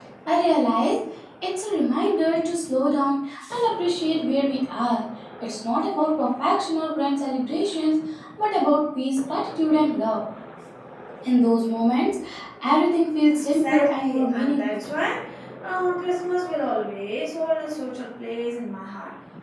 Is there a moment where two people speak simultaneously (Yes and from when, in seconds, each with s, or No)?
Yes, from 13.5 s